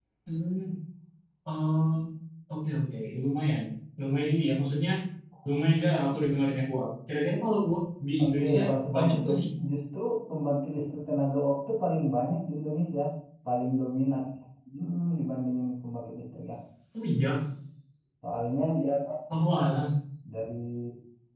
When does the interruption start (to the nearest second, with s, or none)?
8 s